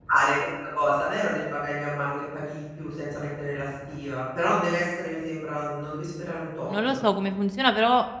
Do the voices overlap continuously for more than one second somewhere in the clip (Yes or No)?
No